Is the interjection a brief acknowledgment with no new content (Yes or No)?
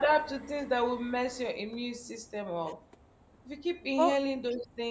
Yes